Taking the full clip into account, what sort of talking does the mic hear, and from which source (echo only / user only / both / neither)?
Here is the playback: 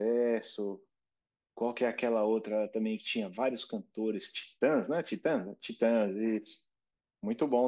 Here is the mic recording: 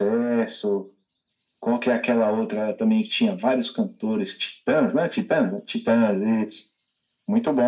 echo only